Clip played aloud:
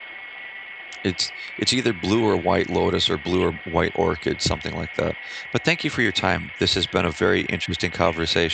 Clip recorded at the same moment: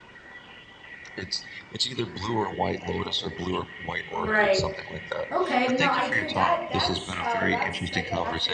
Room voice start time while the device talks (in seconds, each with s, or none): 4.1 s